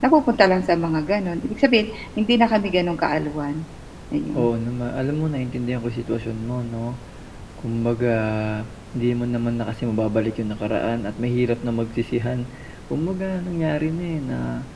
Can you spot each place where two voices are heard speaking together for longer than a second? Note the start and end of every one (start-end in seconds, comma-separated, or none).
none